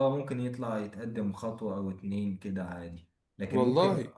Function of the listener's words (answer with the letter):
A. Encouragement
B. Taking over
A